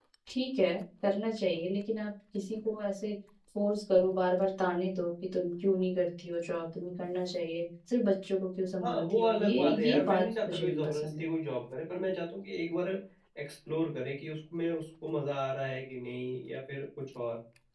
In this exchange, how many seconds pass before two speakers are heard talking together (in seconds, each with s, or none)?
8.7 s